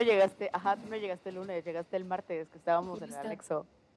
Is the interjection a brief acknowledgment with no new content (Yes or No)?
No